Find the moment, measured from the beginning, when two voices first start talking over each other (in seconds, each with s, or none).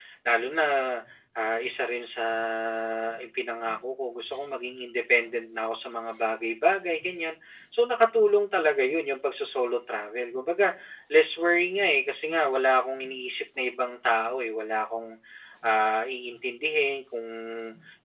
none